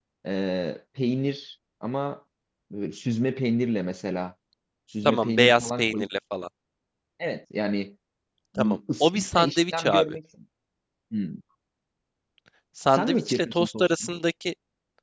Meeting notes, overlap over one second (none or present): present